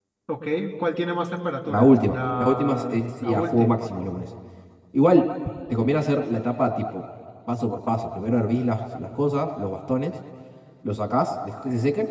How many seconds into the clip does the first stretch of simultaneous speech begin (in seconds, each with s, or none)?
1.7 s